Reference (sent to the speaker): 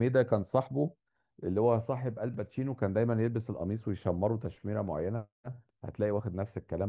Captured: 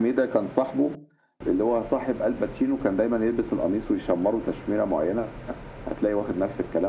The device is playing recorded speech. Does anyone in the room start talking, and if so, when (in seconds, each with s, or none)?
none